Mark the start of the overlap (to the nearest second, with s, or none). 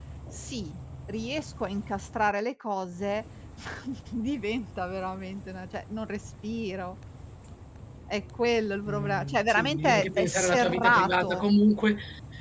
9 s